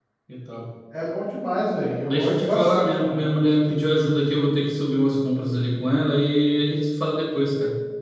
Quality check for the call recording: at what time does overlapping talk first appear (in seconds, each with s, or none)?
2.0 s